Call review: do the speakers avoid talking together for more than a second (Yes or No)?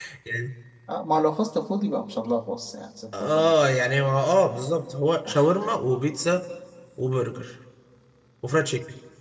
Yes